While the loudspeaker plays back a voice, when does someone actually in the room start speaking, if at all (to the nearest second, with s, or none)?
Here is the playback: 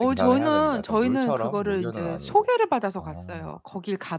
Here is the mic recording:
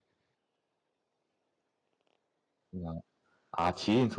3 s